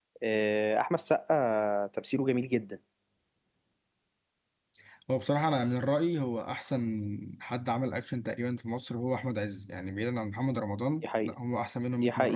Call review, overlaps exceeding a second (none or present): none